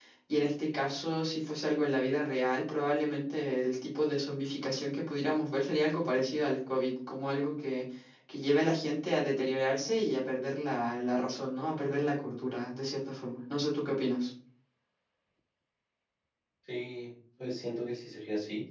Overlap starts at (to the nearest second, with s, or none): none